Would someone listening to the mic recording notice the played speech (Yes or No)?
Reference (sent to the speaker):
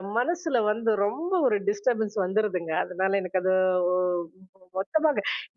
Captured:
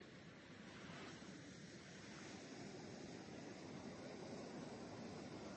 No